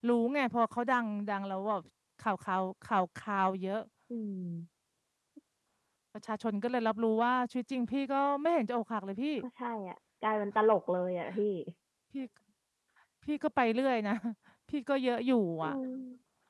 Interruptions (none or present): none